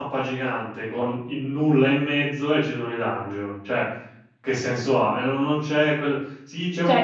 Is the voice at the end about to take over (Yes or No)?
Yes